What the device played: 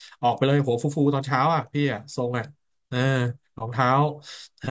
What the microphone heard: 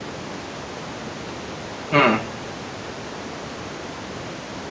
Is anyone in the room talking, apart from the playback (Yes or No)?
Yes